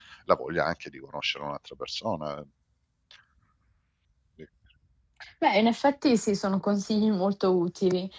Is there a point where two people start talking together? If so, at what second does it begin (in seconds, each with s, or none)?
none